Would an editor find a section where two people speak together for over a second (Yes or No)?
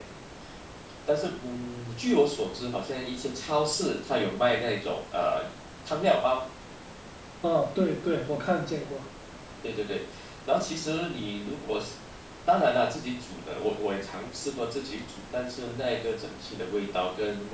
No